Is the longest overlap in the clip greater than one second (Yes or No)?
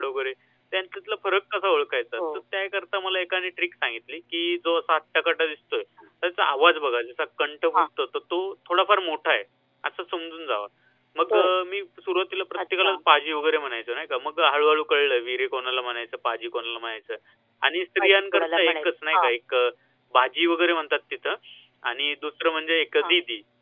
Yes